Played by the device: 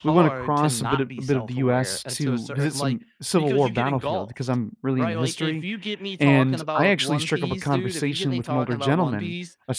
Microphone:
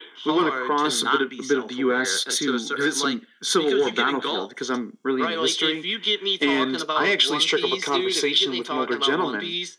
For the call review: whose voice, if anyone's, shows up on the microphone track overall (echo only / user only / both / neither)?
echo only